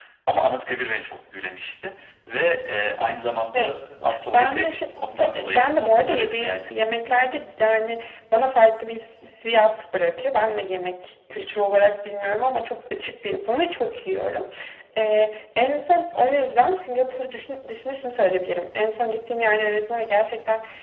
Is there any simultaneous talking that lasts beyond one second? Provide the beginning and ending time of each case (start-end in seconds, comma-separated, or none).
5.4-6.7